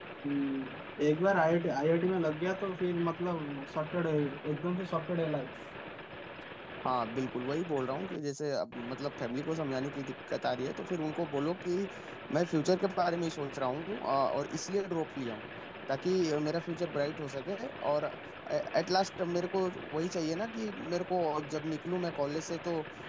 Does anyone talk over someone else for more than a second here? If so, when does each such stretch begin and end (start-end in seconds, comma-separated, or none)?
none